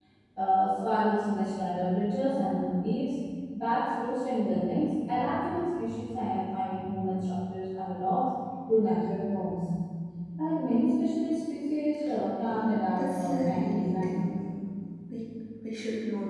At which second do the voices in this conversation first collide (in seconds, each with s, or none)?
12.4 s